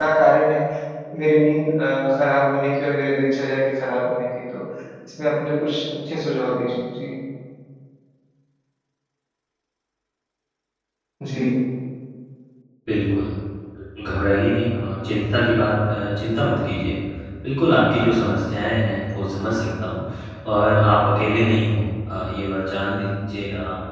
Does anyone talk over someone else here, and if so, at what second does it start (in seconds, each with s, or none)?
none